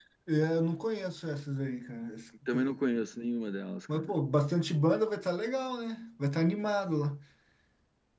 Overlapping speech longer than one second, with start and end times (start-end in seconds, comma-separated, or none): none